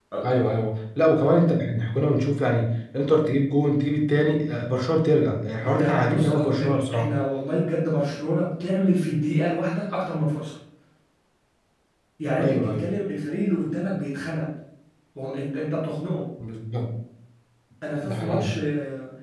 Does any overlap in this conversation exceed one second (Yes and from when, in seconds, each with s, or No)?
Yes, from 5.6 s